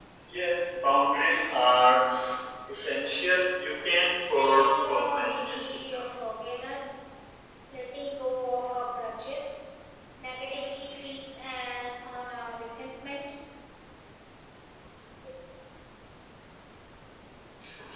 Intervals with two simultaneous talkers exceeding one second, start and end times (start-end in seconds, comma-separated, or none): 4.3-6.0